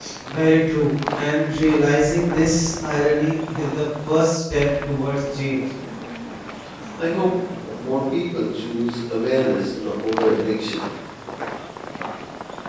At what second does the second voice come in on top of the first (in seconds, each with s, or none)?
none